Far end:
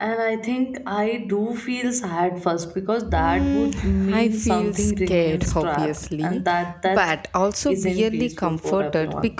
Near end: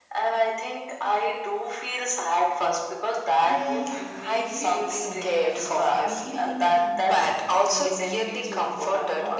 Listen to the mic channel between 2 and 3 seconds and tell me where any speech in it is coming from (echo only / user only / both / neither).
echo only